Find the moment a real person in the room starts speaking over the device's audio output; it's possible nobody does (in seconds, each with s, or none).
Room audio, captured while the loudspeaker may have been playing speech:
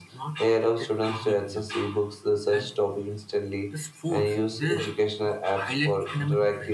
none